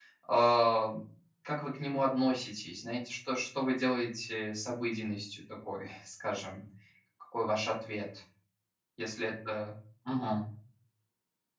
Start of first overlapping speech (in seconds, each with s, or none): none